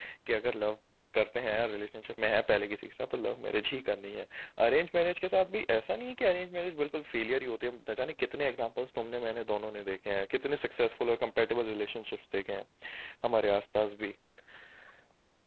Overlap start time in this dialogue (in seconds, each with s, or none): none